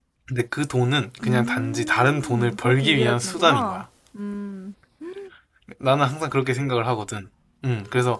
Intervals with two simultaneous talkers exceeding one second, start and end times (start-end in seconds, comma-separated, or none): 1.2-3.8